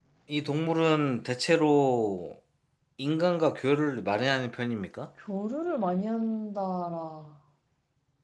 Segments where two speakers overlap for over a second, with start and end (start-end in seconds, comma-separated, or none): none